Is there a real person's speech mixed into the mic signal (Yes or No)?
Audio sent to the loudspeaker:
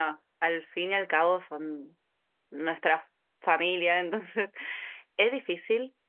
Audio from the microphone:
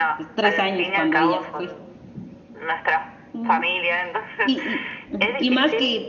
Yes